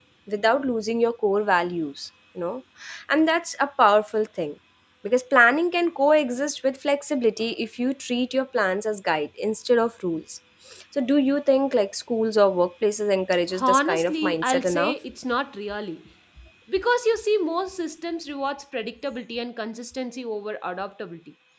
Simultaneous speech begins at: 13.5 s

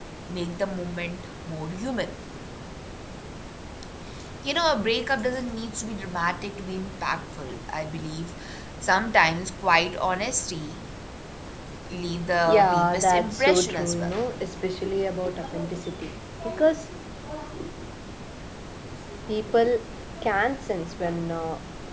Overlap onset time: 12.4 s

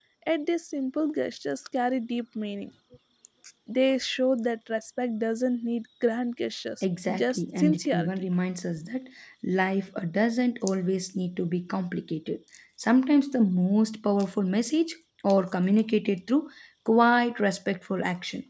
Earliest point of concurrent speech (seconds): 6.8 s

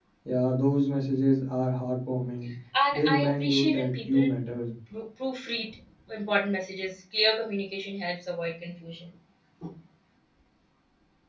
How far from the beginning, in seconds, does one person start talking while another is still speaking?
2.7 s

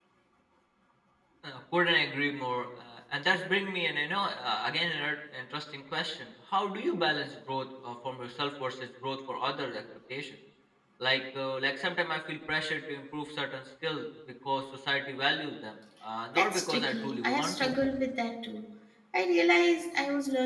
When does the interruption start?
16.4 s

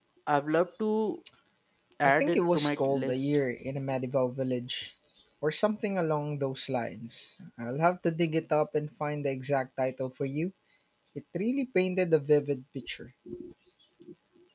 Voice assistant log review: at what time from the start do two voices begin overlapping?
2.0 s

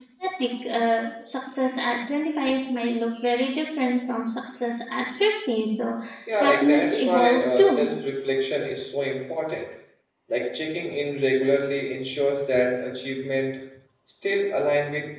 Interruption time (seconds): 6.4 s

